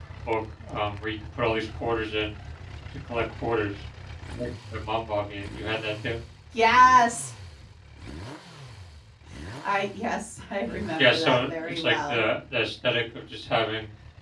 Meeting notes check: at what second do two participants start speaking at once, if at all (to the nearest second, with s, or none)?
11 s